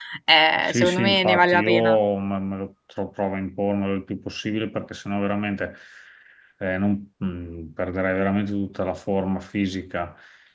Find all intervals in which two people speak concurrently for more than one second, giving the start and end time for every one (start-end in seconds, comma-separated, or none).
0.6-2.0